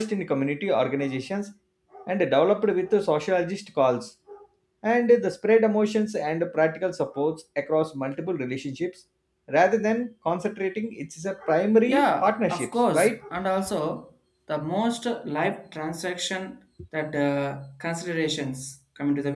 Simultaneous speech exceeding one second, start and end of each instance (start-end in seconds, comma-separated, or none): 11.8-13.2